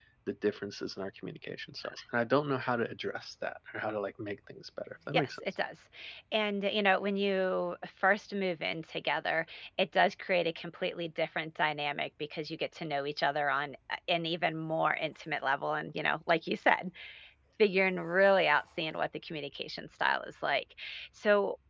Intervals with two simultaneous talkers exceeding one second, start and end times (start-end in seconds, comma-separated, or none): none